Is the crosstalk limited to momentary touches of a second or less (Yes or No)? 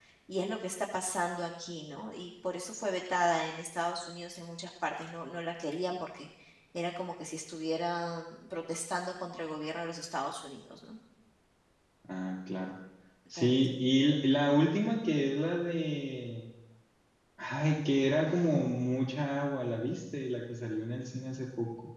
Yes